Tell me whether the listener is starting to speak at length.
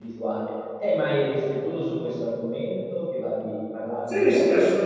Yes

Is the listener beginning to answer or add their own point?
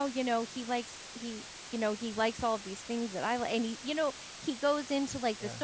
No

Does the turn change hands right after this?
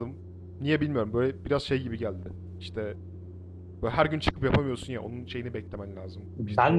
Yes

